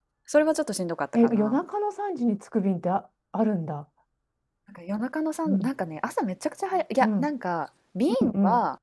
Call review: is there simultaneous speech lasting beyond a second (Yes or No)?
No